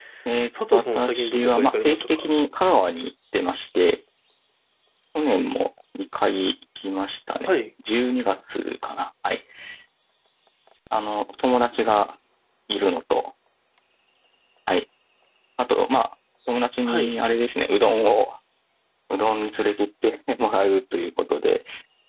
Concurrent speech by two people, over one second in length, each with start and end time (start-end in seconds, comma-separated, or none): 0.7-2.3